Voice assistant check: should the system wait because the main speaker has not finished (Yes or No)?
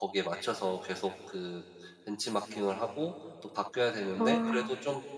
Yes